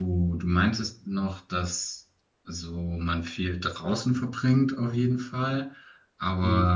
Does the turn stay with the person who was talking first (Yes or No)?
Yes